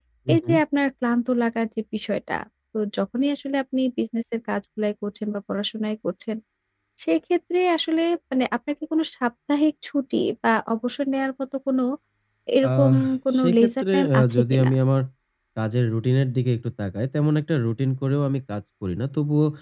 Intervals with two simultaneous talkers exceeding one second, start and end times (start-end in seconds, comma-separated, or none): 13.4-14.7